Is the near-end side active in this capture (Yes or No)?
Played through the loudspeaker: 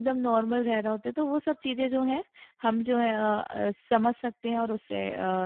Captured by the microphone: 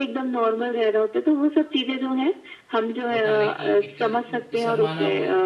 Yes